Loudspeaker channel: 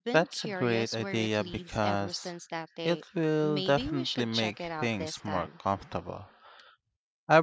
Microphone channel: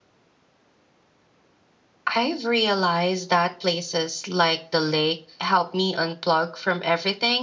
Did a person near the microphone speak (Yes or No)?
Yes